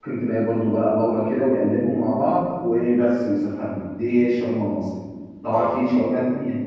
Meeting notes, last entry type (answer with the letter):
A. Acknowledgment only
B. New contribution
A